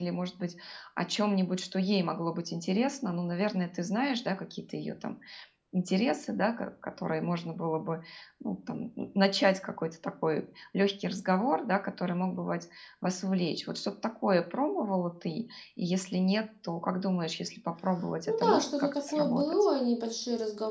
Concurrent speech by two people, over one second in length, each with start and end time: 18.3-19.7

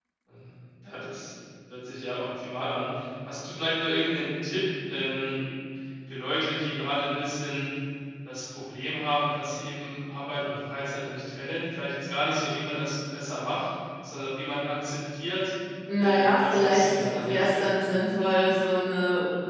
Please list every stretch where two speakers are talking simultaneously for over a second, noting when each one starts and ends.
16.0-17.9

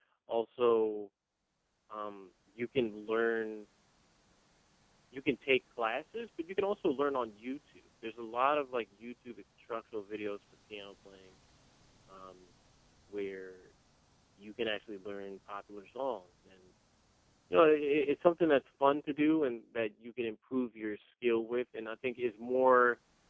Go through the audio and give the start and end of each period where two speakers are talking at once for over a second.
none

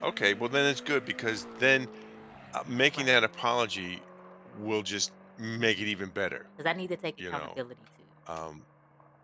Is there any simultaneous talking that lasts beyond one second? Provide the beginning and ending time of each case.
none

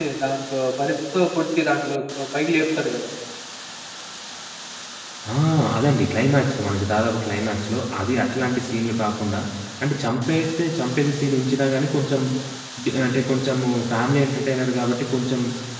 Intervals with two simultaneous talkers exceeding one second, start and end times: none

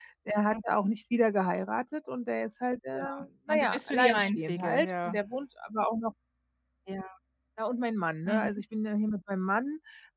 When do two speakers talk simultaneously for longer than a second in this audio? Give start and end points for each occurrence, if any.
3.5-5.2

